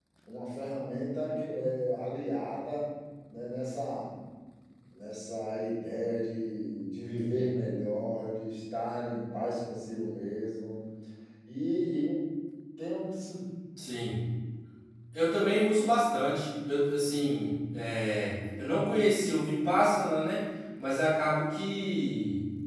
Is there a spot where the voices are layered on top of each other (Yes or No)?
No